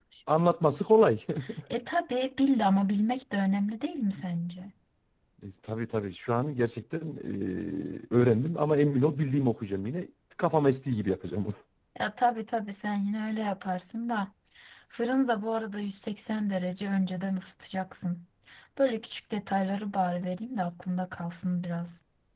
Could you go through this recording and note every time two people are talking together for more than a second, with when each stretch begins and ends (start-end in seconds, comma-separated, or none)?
none